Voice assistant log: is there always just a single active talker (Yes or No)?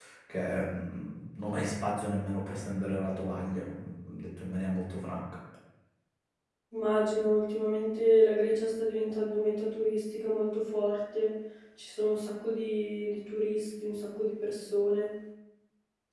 Yes